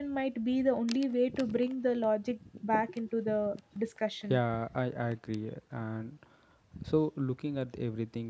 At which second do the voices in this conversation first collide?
none

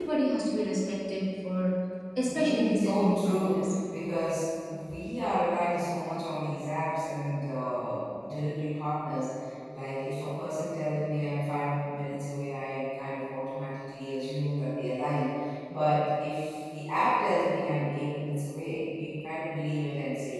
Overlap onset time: 2 s

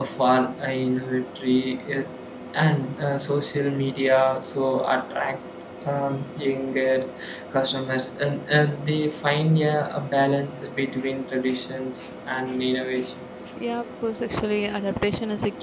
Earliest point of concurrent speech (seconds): none

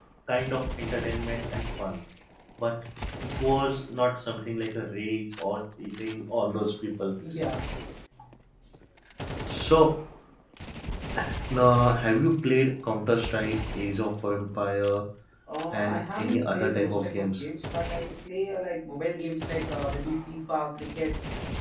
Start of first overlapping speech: 16 s

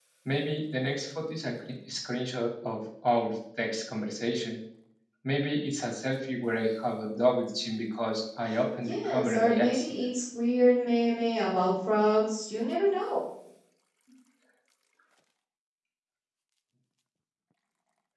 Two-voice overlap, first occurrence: 9 s

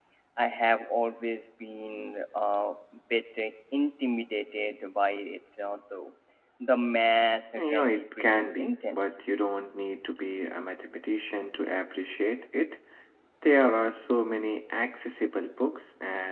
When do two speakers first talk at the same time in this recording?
8 s

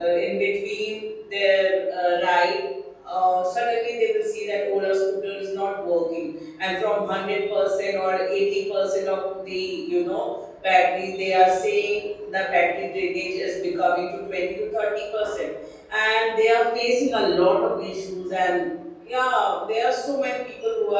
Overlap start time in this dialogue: none

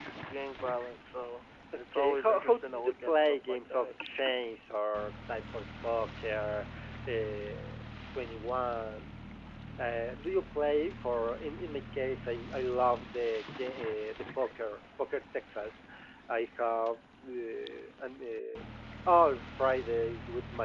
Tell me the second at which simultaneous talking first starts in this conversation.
2 s

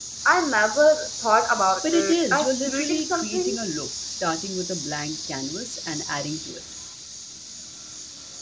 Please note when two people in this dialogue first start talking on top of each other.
2 s

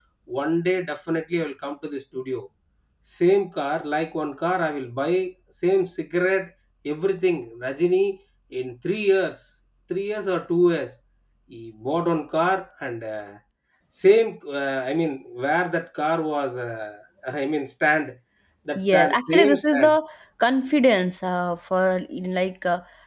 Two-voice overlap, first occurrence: 19 s

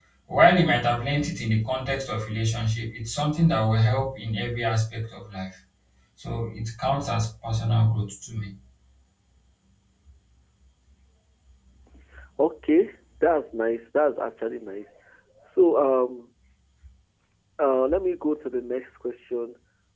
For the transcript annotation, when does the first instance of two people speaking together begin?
none

